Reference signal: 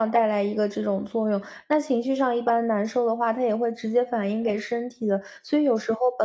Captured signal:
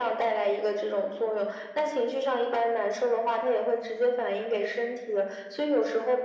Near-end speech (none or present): none